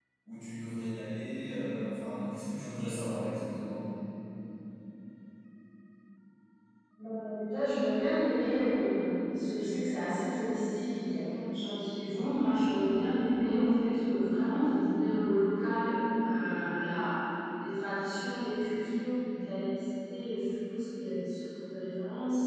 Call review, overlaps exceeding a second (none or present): none